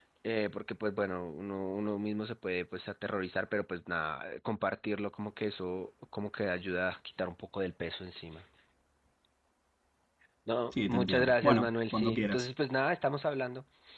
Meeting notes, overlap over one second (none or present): present